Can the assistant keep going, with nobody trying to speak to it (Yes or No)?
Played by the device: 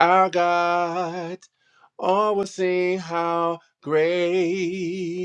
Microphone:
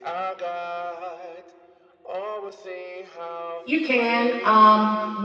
No